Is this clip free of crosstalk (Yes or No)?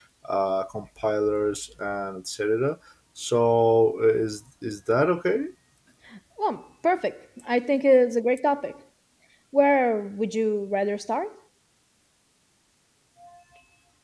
Yes